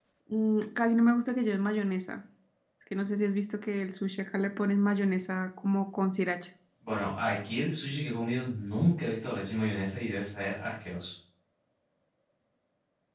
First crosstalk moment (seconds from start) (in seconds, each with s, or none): none